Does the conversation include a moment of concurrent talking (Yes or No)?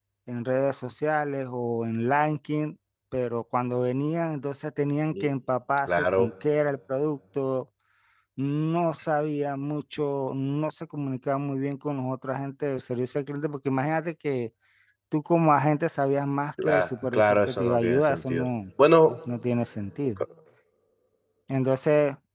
Yes